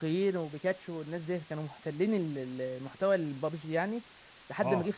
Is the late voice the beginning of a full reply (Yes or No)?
No